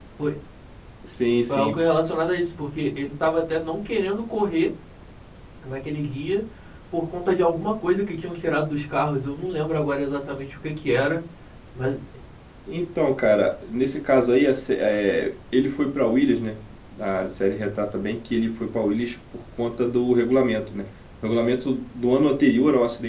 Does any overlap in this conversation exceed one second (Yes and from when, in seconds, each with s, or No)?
No